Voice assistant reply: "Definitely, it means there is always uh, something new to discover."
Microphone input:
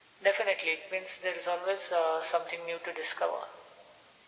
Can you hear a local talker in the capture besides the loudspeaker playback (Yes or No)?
No